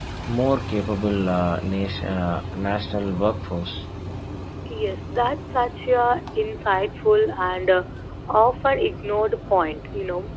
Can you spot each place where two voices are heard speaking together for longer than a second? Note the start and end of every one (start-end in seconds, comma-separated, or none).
none